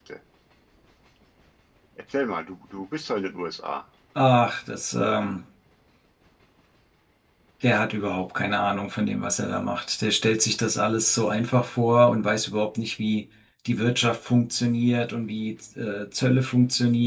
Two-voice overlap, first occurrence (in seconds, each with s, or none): none